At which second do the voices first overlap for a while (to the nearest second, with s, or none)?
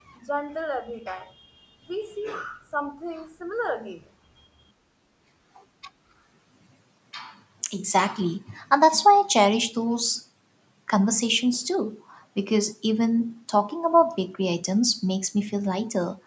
none